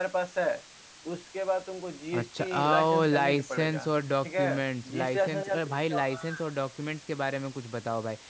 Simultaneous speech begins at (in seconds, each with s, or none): 2.1 s